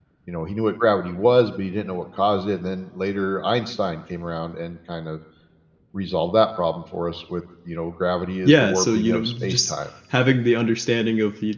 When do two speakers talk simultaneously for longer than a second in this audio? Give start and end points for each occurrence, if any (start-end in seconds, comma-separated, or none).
8.4-9.7